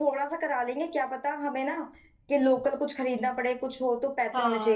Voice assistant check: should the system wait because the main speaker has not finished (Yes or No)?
No